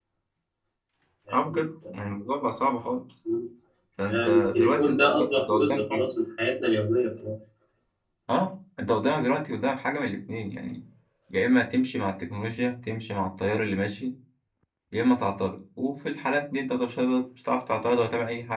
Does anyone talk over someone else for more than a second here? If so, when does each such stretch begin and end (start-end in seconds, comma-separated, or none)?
4.1-6.0